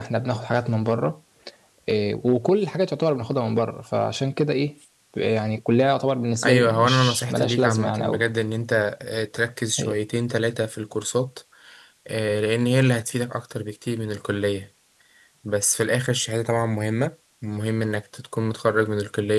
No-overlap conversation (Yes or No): No